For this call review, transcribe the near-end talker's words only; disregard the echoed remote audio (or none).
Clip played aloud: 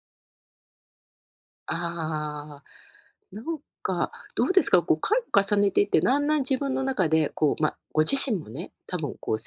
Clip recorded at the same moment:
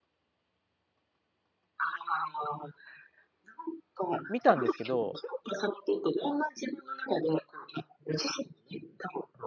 見たんですけど、